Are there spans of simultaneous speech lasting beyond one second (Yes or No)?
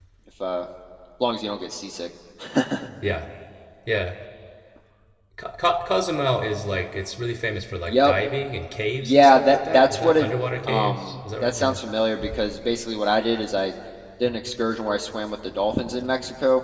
Yes